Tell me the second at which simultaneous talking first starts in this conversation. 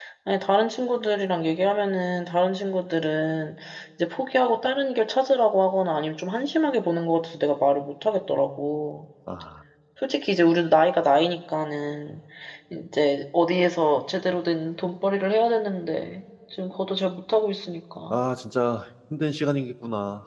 none

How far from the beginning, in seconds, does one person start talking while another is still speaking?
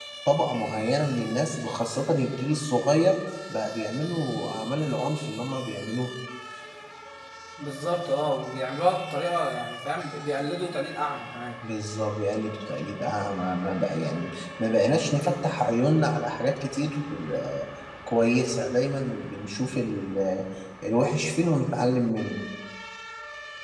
none

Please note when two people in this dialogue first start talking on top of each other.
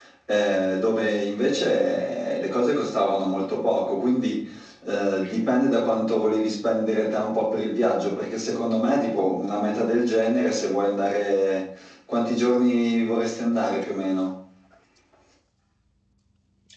none

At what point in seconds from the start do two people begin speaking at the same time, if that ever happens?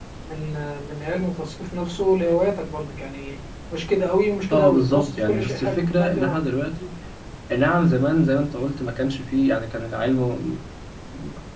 4.5 s

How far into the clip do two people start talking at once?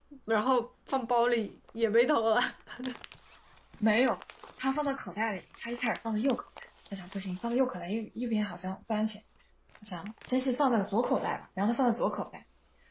none

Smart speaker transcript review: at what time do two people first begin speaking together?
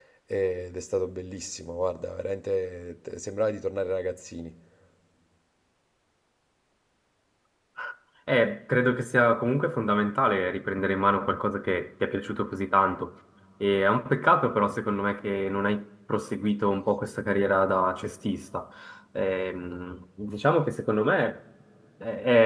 none

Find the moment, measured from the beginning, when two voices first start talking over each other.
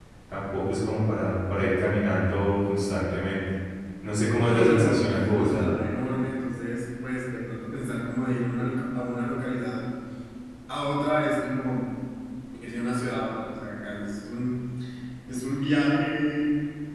4.4 s

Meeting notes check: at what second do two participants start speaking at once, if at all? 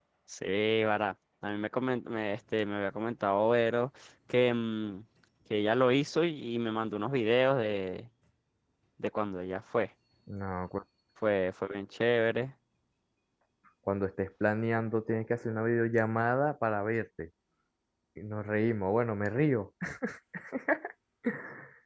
none

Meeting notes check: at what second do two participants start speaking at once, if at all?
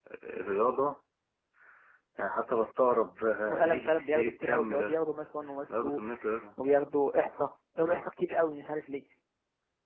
3.5 s

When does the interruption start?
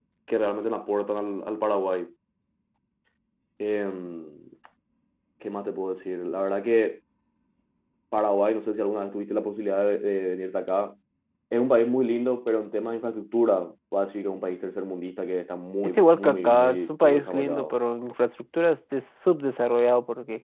15.8 s

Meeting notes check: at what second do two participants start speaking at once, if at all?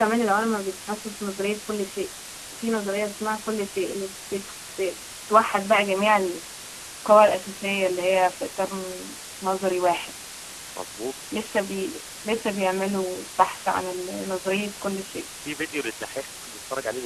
none

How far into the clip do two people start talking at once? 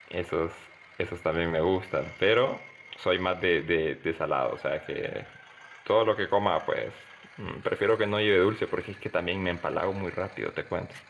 none

